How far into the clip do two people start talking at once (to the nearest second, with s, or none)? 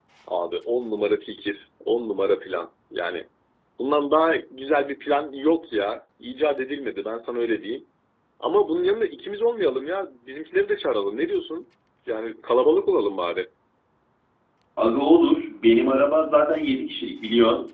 none